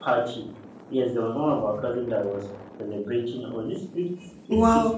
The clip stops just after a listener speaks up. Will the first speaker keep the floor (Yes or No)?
No